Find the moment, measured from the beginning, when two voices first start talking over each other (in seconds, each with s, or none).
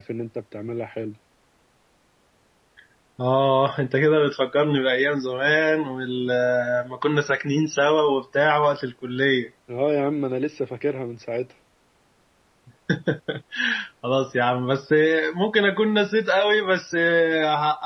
none